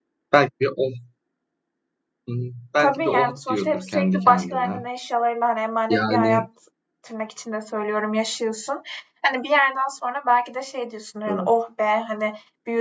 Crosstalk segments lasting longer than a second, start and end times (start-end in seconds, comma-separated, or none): 2.8-4.8